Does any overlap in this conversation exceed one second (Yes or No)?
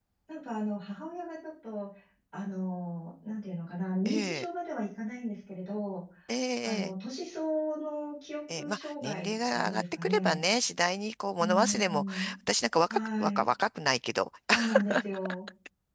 Yes